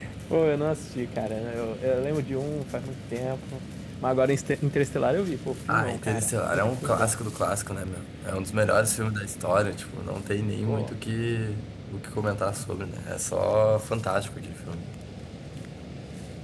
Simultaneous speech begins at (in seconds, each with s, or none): 5.7 s